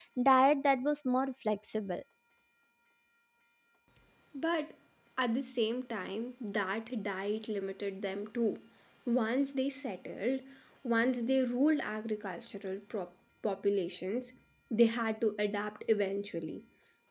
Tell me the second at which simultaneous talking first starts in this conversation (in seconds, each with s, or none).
none